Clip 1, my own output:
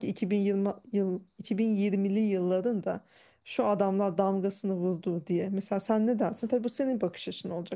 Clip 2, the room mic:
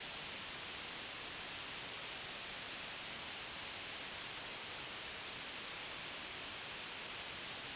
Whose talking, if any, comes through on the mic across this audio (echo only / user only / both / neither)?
neither